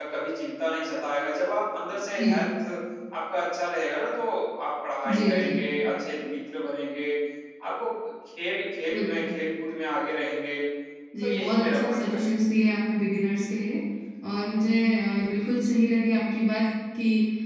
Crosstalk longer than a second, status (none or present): present